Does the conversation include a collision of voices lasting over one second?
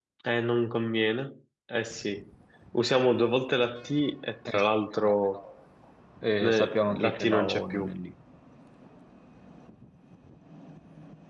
Yes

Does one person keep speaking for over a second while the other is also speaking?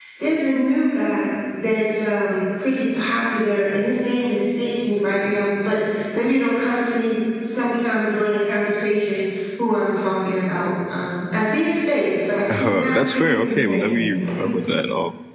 Yes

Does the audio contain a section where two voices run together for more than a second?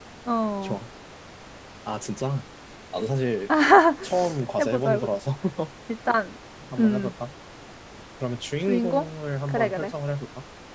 No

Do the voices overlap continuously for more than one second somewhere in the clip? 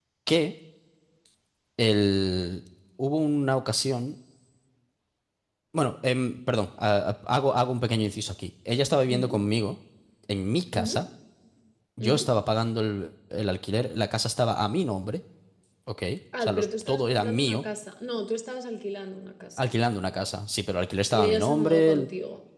Yes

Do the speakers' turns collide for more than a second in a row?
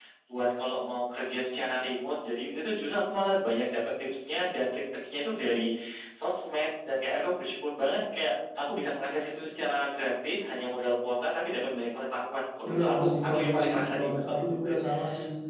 Yes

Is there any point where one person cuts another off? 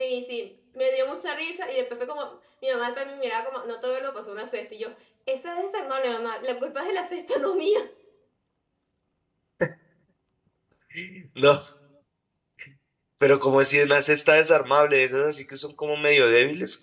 No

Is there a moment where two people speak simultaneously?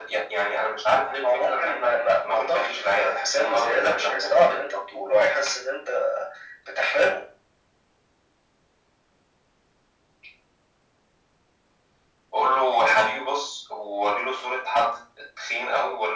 Yes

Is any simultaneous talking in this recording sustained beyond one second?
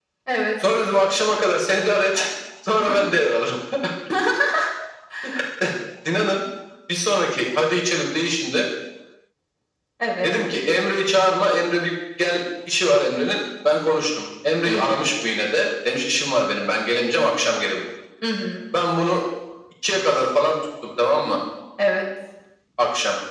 No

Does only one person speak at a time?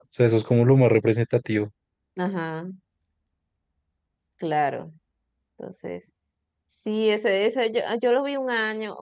Yes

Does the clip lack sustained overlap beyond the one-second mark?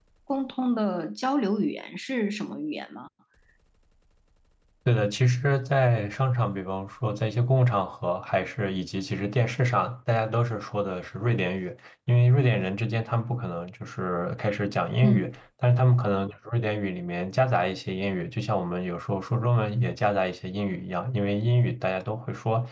Yes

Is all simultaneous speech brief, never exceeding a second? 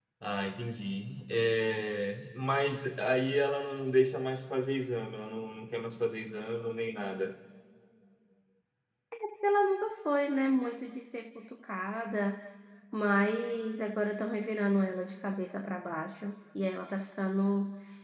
Yes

